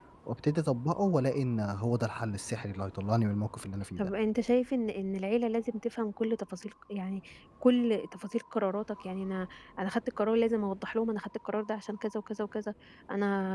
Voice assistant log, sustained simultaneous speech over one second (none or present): none